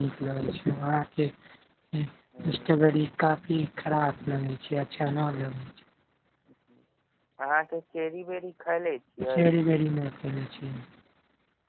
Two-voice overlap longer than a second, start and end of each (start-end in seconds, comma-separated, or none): none